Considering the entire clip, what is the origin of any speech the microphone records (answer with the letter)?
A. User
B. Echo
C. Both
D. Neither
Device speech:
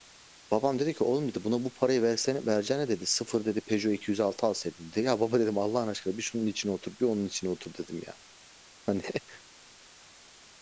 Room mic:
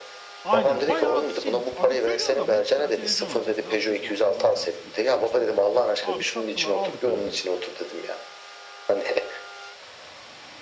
C